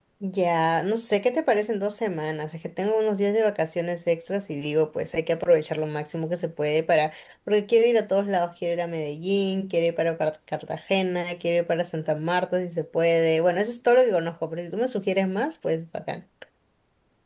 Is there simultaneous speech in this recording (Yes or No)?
No